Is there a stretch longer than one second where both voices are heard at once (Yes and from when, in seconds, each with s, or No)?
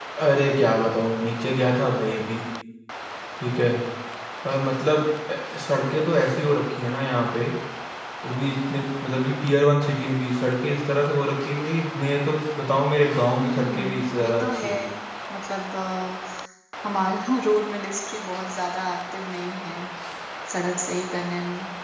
Yes, from 13.4 s